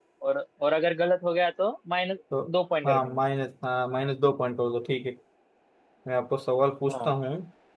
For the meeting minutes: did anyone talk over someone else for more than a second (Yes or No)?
No